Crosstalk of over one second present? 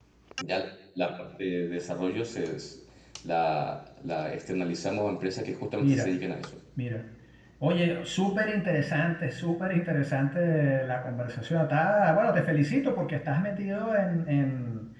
No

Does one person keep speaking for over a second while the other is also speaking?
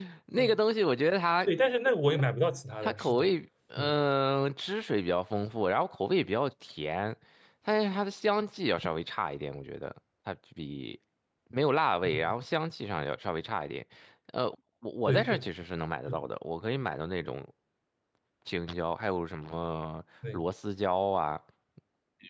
No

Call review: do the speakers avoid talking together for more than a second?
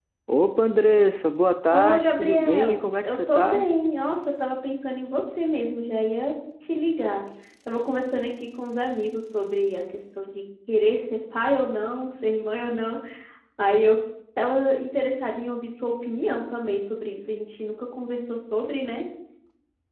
No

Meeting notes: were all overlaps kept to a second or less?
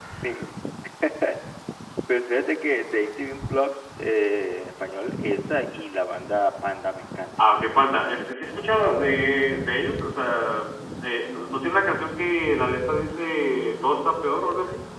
Yes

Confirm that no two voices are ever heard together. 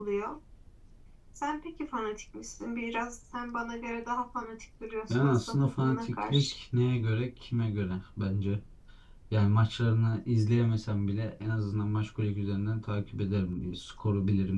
No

